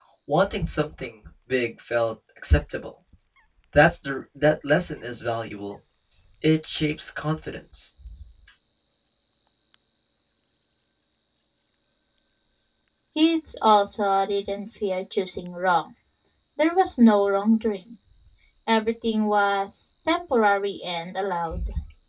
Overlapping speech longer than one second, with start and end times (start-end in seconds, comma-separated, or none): none